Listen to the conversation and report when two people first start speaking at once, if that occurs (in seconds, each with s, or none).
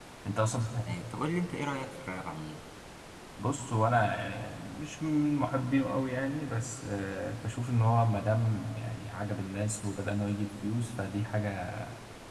none